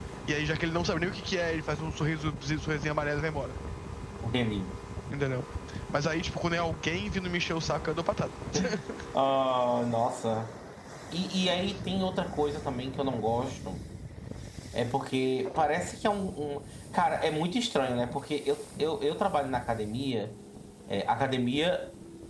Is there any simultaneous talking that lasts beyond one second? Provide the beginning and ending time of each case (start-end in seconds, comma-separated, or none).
none